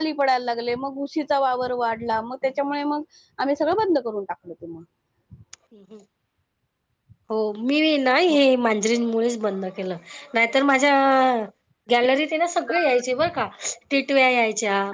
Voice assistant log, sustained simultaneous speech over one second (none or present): none